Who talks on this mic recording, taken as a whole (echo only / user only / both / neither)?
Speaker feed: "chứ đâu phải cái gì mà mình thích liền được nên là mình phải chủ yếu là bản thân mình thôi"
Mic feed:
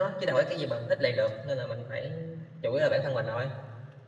echo only